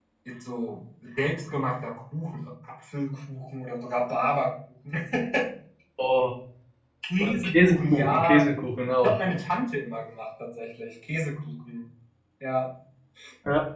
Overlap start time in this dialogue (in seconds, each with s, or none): 7.2 s